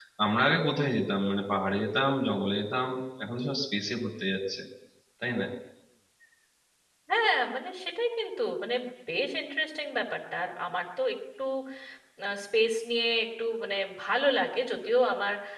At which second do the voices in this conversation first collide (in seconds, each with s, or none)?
none